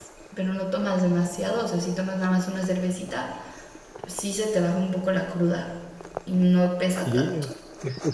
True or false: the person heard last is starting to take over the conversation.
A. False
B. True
B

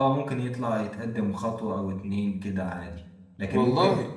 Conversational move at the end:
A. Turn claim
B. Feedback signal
B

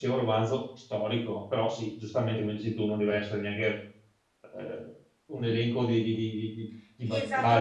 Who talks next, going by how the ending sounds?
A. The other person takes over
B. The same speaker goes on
A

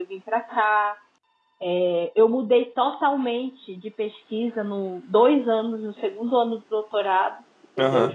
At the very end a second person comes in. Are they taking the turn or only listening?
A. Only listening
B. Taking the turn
A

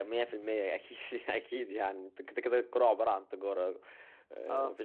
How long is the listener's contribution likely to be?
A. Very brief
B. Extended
A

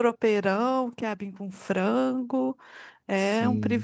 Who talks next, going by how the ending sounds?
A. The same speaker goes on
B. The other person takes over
B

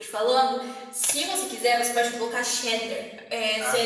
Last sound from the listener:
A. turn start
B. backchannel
B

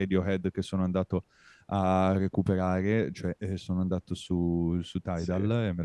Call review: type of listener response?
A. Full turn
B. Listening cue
B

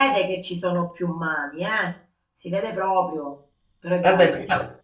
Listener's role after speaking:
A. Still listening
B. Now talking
B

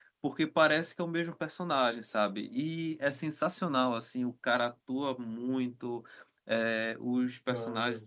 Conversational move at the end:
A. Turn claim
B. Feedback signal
B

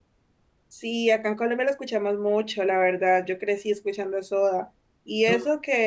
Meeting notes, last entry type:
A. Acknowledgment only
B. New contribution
A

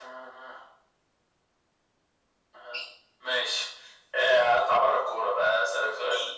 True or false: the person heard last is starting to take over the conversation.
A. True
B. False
B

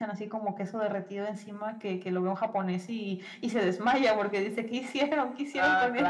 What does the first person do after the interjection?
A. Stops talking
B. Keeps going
A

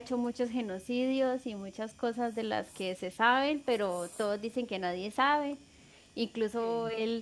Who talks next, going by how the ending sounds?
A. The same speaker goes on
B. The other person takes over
A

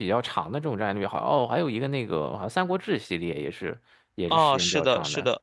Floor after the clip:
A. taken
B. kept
A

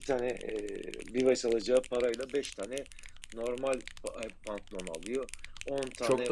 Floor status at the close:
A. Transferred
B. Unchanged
B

